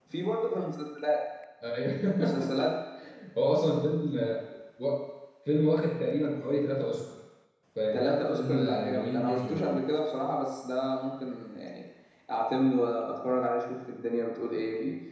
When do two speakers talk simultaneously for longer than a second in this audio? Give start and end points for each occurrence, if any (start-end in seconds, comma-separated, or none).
7.9-9.8